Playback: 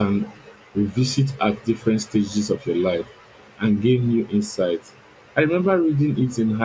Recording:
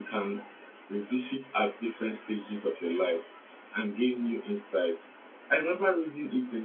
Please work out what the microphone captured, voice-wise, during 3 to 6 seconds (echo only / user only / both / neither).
echo only